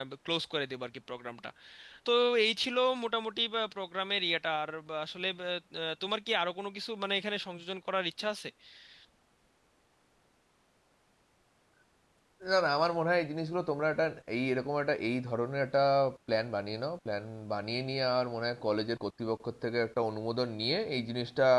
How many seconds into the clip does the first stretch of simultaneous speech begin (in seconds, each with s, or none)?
none